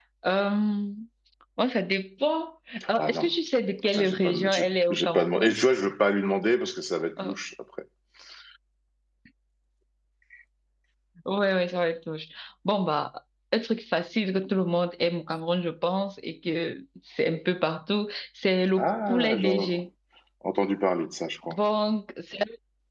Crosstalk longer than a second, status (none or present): present